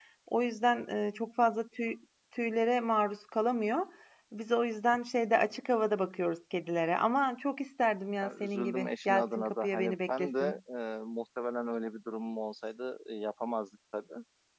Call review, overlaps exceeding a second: present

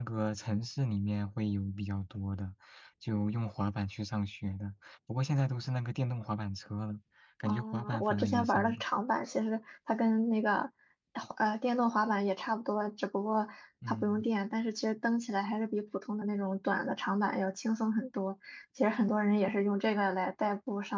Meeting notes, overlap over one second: present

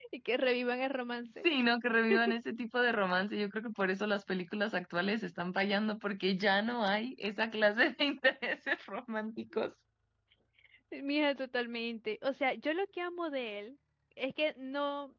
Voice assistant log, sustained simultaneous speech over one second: none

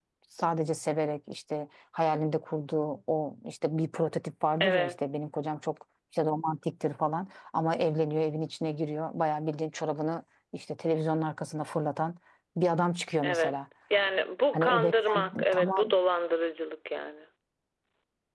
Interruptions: present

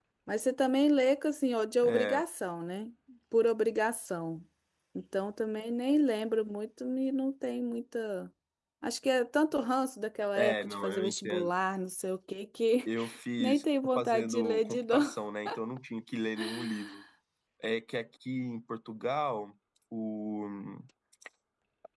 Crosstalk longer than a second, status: present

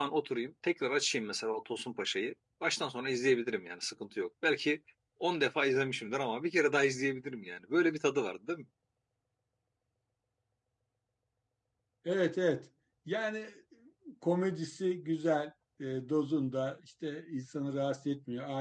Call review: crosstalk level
none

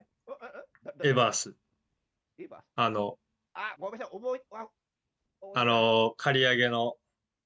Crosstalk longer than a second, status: none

